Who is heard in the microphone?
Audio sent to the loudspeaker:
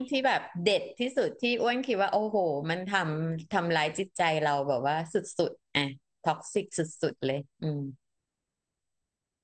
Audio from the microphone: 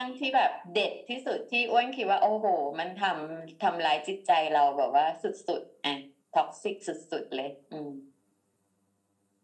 echo only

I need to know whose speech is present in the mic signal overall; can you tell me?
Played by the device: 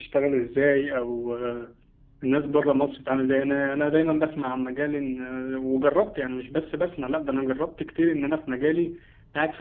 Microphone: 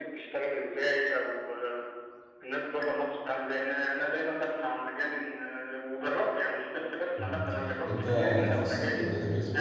both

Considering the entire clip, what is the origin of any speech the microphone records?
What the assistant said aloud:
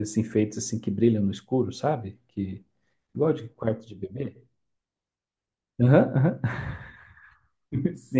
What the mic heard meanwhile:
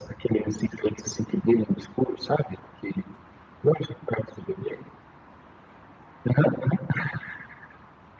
echo only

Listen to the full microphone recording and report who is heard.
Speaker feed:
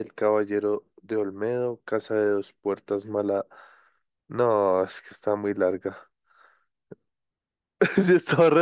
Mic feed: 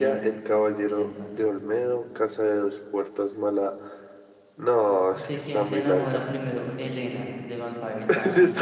both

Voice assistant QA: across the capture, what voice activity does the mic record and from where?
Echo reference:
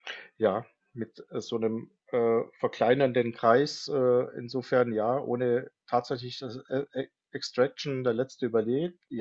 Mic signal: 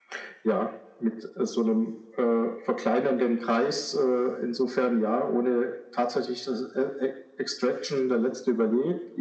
echo only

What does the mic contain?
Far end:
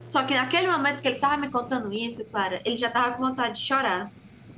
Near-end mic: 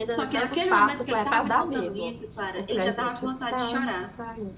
both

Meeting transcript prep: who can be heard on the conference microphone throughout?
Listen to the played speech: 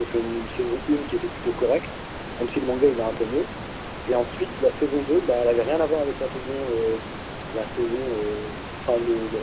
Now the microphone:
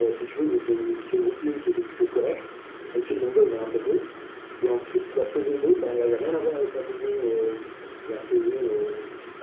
echo only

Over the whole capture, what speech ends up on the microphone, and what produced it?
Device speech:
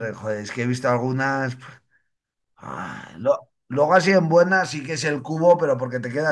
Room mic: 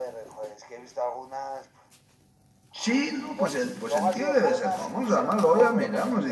both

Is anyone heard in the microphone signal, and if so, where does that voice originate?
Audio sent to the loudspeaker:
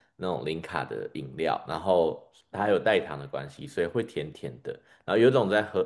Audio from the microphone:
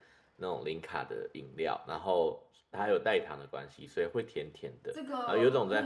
both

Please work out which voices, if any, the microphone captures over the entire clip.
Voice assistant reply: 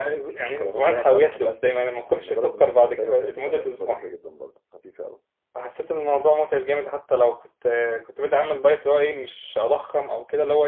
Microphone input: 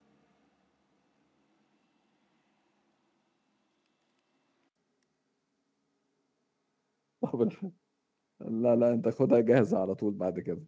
user only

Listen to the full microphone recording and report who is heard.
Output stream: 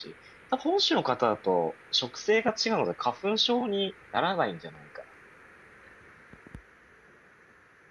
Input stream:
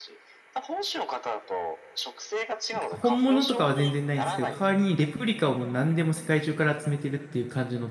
both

